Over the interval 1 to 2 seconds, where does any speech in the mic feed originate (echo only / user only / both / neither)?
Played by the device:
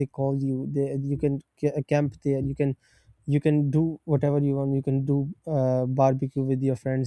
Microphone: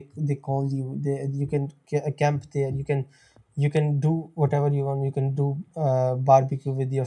echo only